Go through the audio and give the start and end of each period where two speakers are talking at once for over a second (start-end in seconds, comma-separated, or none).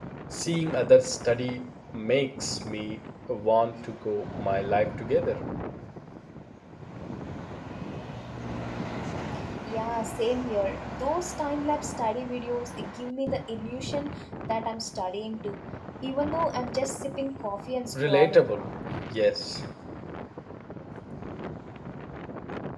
none